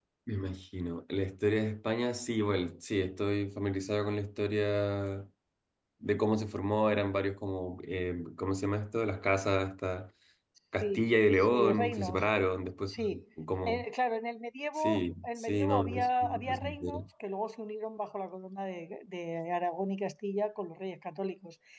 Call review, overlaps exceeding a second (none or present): present